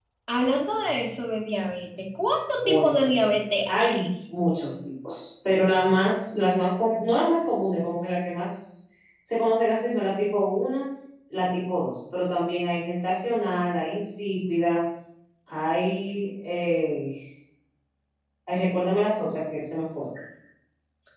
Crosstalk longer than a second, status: none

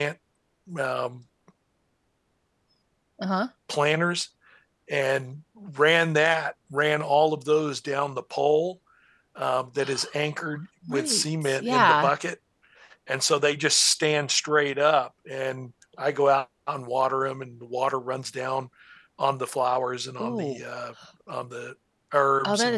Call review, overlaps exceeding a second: present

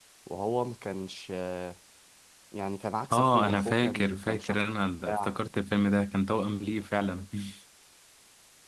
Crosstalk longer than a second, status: present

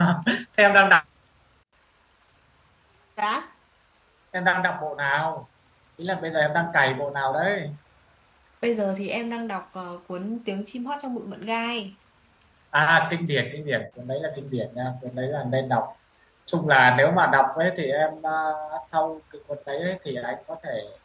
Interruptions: none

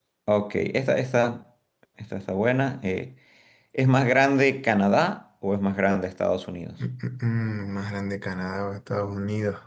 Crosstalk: none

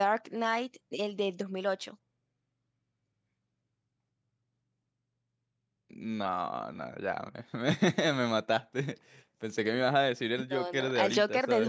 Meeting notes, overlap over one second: present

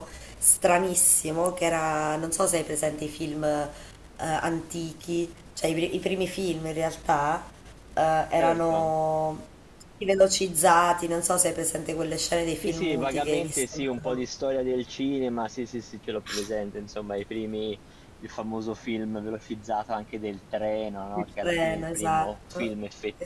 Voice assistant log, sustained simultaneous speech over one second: present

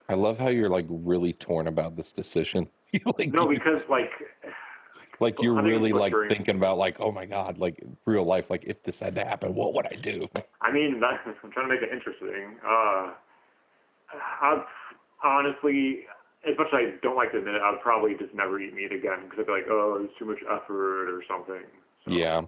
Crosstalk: present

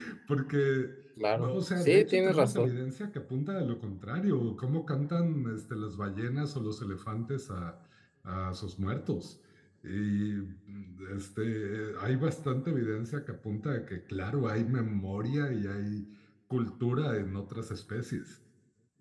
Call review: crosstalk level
present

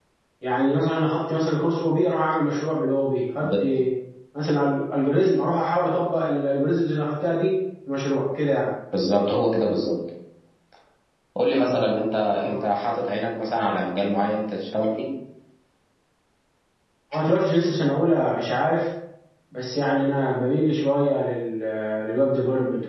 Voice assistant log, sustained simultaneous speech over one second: none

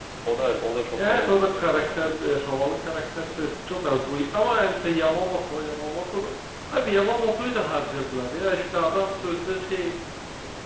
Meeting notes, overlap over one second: present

